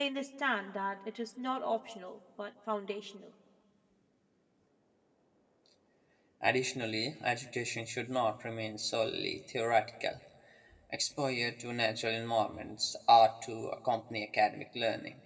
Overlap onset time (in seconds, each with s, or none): none